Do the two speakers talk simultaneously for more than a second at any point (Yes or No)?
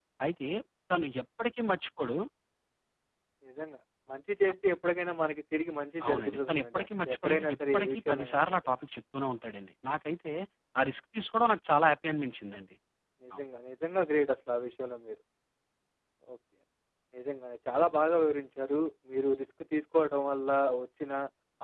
Yes